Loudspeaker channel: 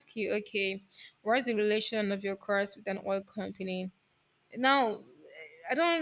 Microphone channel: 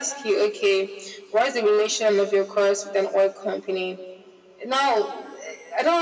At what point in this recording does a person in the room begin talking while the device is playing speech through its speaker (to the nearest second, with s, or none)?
none